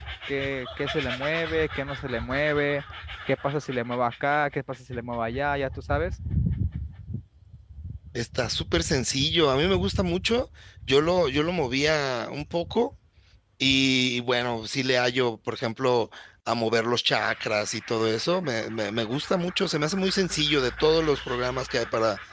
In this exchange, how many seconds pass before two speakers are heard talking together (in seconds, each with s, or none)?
none